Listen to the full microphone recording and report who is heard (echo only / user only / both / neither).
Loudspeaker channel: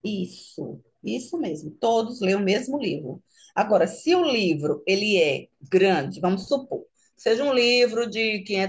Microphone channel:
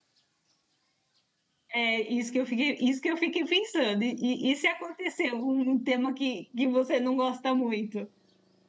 user only